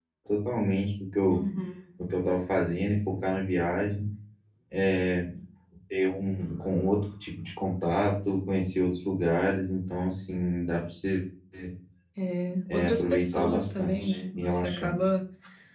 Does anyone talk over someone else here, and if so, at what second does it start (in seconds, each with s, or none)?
12.7 s